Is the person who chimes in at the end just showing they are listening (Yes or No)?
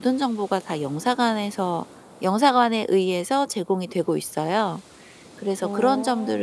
Yes